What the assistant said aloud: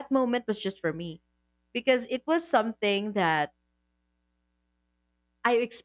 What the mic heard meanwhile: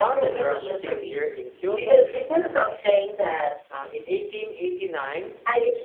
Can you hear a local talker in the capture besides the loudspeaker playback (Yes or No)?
Yes